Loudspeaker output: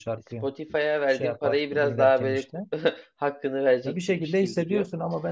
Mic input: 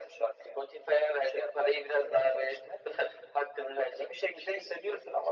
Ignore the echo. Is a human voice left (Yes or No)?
No